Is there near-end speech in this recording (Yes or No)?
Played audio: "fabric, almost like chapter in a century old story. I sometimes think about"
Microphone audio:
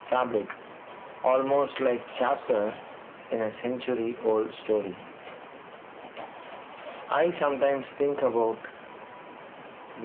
No